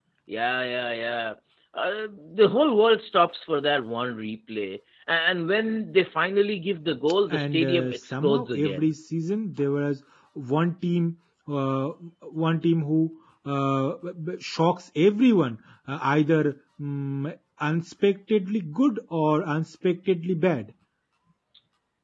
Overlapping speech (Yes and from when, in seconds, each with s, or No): Yes, from 7.3 s